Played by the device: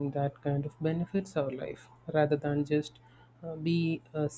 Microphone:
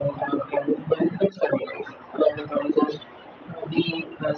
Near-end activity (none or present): none